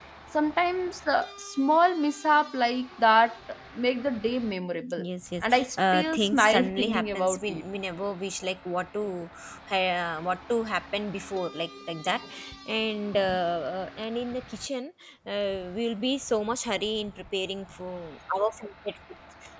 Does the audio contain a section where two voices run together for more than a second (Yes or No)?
Yes